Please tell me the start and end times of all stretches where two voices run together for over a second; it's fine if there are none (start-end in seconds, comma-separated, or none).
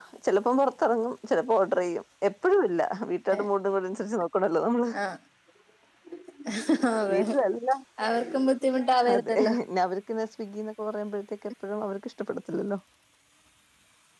none